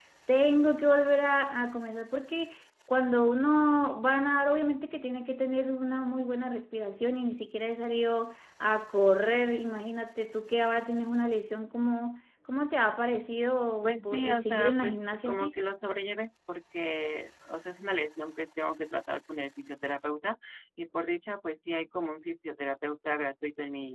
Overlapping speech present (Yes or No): Yes